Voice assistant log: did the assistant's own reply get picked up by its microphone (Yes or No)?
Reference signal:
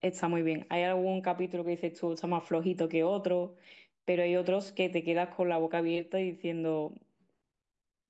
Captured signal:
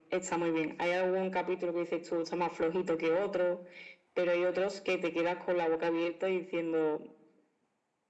Yes